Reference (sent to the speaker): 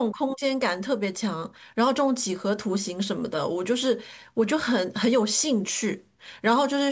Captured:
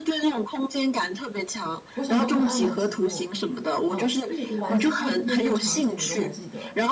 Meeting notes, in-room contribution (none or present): present